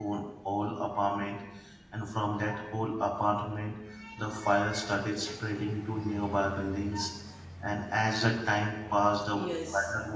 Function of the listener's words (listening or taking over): taking over